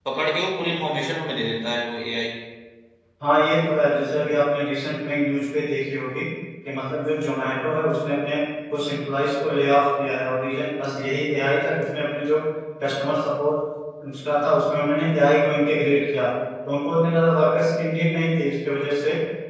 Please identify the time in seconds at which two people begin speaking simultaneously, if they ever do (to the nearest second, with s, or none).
none